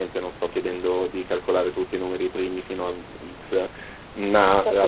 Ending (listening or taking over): listening